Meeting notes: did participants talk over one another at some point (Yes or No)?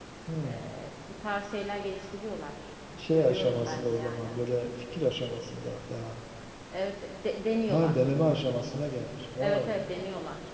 Yes